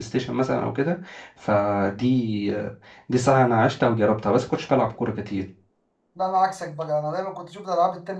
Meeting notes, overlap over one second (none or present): none